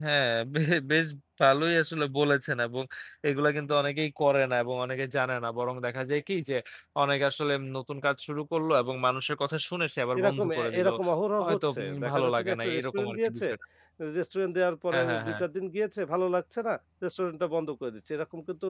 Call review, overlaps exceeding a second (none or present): present